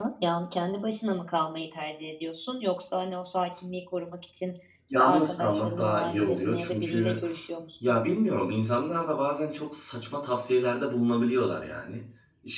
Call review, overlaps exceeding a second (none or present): present